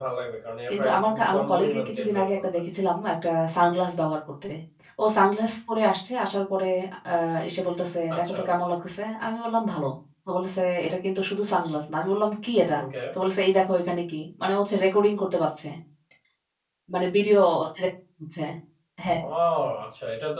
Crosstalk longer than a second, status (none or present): present